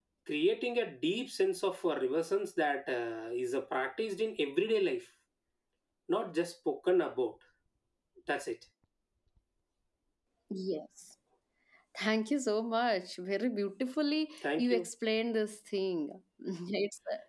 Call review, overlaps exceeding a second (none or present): none